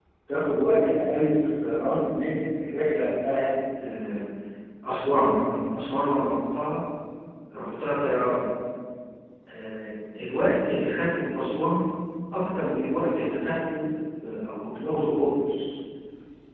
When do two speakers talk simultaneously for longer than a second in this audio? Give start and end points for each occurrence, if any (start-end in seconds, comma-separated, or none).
none